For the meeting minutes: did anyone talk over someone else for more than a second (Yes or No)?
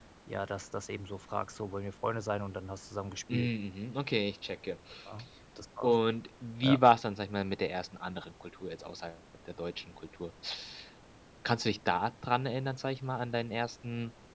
No